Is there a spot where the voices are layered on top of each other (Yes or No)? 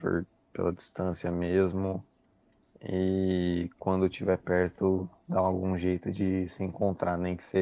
No